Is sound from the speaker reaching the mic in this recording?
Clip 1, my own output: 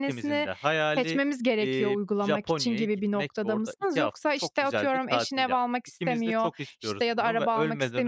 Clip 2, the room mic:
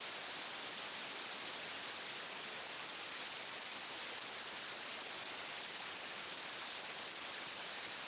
No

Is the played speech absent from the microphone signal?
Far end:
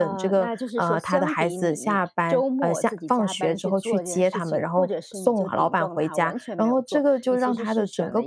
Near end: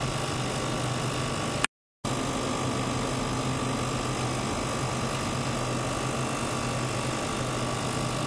Yes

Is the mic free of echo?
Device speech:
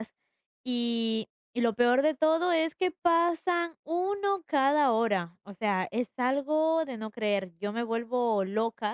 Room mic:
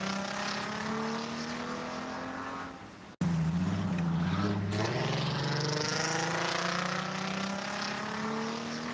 Yes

